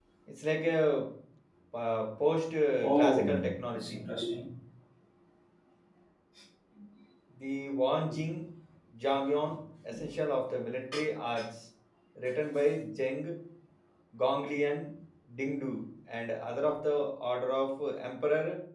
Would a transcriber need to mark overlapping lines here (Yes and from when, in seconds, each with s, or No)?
Yes, from 2.8 s